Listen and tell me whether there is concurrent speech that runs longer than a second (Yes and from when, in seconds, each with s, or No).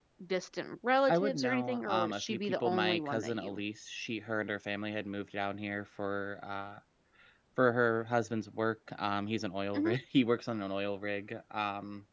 Yes, from 1.1 s